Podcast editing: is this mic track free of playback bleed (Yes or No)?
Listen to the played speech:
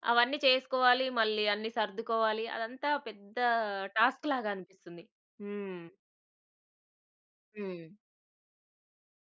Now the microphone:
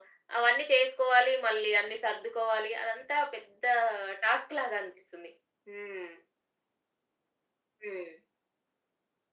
No